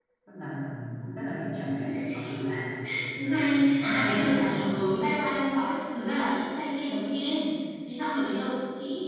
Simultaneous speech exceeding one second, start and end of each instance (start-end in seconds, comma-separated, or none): 3.2-4.8